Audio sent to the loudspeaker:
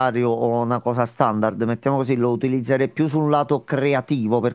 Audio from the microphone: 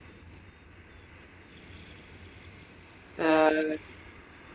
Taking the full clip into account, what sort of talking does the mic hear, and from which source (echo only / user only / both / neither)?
user only